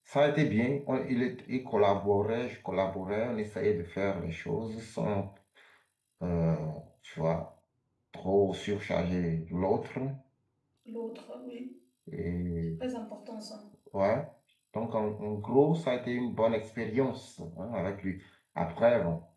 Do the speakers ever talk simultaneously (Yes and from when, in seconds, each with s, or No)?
No